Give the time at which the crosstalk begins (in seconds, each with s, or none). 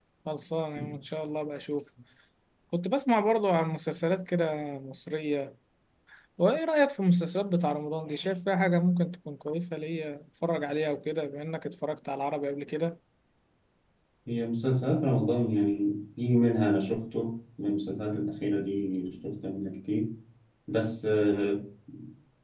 none